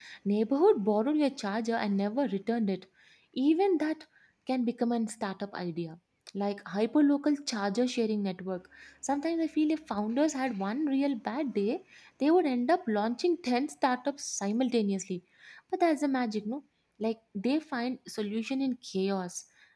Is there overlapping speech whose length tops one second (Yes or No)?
No